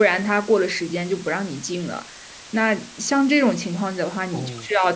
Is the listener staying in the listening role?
Yes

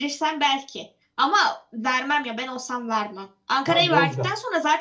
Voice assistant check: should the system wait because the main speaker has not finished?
Yes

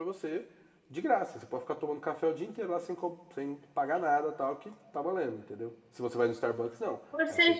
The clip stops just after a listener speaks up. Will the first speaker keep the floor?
No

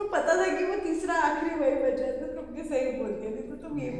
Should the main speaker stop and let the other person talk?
Yes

